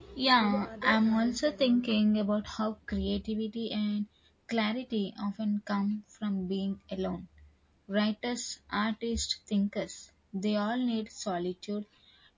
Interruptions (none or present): present